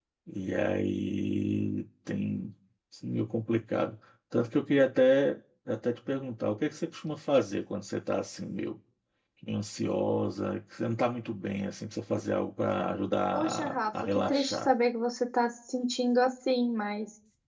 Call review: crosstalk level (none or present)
present